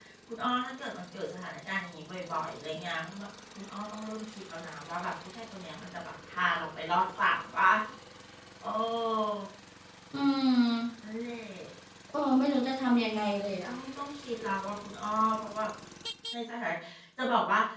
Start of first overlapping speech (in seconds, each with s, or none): none